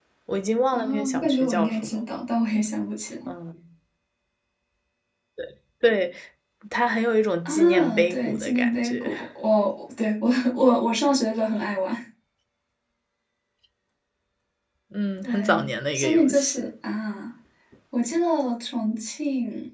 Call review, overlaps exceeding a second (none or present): present